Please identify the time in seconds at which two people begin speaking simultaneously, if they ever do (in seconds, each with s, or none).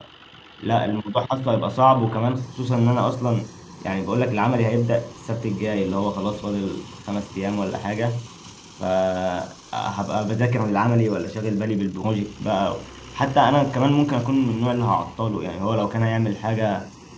none